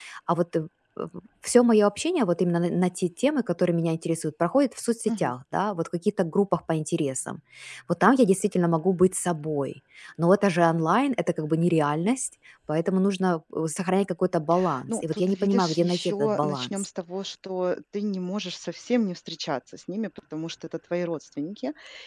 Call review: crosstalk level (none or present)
present